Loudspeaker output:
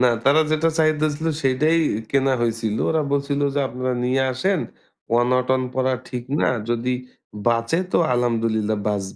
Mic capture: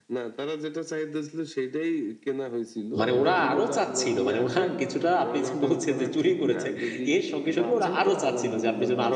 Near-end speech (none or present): present